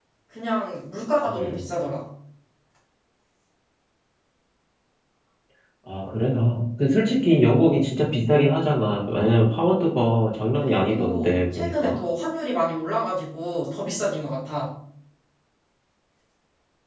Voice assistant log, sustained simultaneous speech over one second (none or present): present